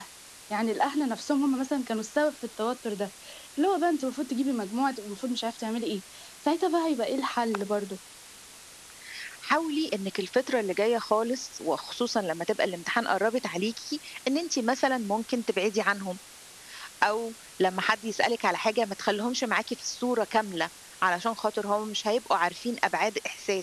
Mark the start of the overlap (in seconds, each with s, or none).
none